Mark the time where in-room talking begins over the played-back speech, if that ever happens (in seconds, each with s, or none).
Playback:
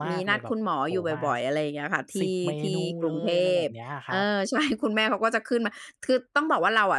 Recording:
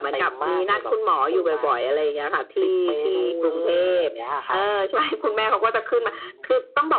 5.9 s